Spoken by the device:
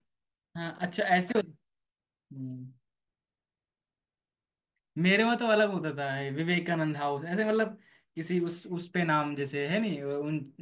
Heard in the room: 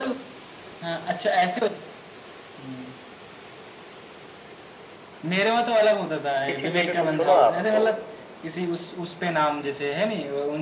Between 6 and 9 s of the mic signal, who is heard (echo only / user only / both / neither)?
both